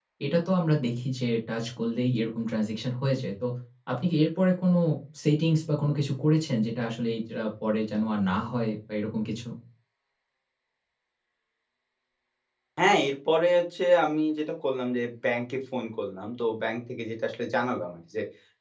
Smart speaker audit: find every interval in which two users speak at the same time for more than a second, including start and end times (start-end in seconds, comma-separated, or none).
none